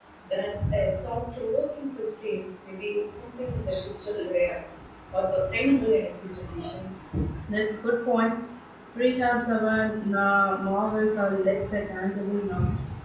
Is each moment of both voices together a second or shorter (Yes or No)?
Yes